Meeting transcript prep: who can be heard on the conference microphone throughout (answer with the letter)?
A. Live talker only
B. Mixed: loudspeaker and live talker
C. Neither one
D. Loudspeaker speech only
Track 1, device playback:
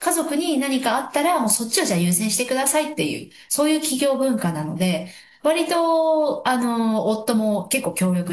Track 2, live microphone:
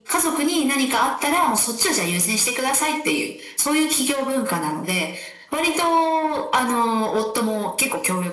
D